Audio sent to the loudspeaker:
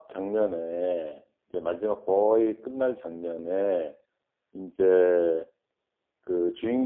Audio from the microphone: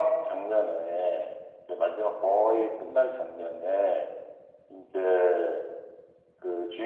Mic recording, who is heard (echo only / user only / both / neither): echo only